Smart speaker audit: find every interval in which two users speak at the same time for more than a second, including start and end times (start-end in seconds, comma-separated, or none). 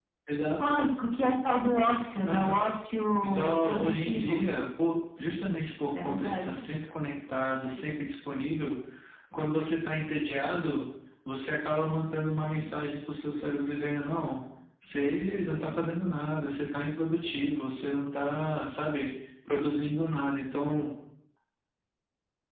3.2-4.5